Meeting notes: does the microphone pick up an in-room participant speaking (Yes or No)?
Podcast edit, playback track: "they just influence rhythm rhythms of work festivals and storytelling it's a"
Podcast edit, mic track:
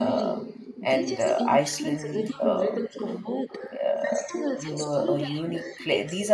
Yes